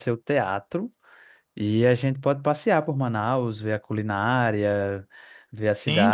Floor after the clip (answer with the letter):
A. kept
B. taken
B